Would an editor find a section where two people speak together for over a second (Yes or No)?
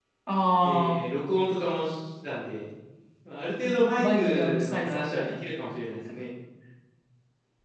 Yes